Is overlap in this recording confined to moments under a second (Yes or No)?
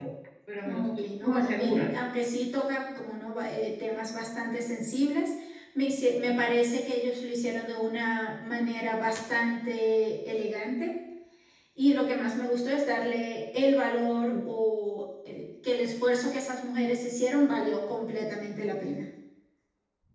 No